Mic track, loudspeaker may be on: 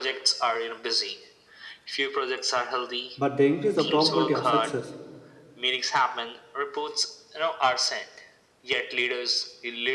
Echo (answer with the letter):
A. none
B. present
B